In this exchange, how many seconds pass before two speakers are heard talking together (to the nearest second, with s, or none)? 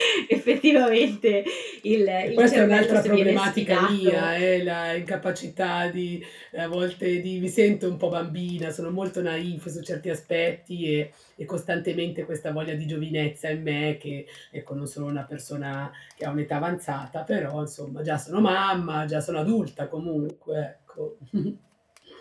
2 s